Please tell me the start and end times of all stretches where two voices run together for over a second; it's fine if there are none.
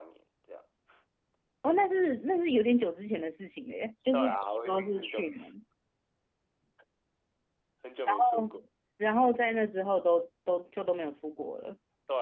4.1-5.5

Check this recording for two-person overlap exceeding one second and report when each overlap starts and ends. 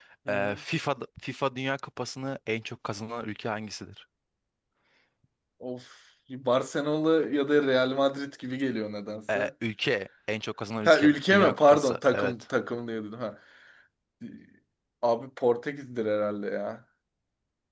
10.8-12.3

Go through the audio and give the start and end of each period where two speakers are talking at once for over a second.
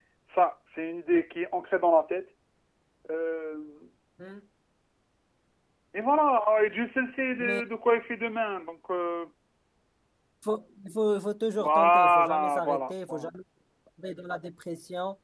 11.6-13.3

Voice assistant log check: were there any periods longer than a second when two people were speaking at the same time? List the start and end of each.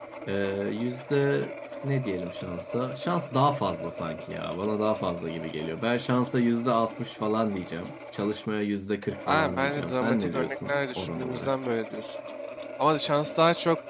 9.3-11.5

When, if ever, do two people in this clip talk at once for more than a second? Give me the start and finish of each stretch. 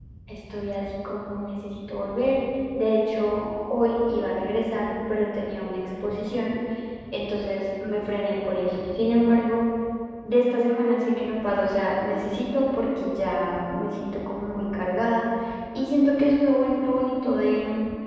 none

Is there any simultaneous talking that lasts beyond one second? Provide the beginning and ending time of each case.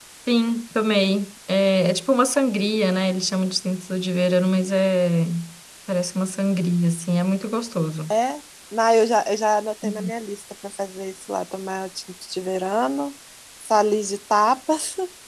none

